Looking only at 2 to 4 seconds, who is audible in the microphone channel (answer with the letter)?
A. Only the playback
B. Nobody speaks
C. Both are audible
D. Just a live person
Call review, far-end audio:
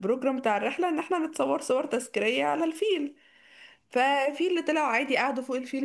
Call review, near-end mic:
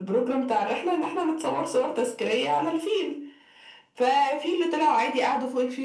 A